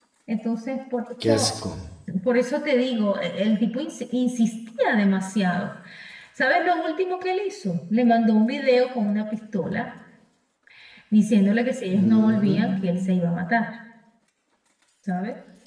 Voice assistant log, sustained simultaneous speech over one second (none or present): present